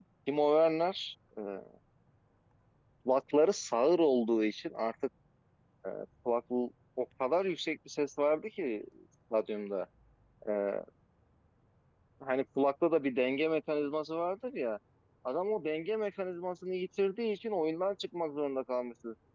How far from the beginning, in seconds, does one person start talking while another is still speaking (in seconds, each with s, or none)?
none